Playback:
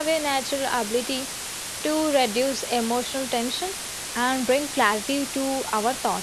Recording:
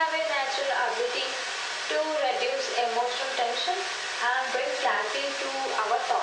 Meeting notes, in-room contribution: none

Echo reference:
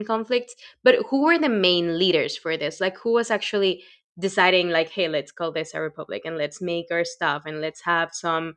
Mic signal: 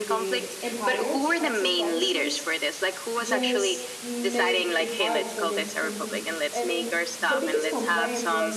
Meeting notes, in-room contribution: present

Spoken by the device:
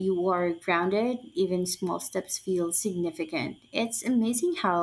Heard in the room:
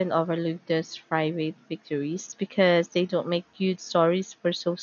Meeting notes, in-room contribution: present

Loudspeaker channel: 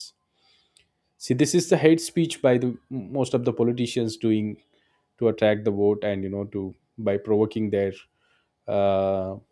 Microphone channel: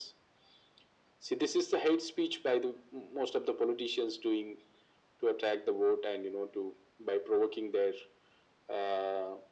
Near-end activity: none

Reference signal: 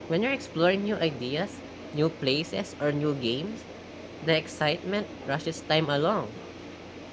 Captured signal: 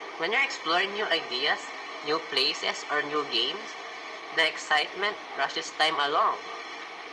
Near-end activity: none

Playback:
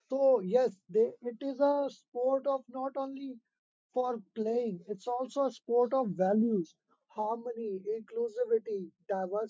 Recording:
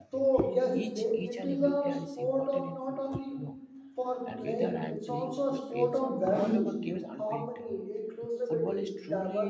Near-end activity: present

